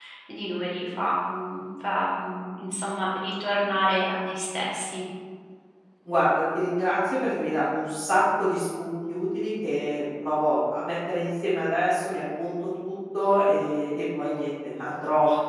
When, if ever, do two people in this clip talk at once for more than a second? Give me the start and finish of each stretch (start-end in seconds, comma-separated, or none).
none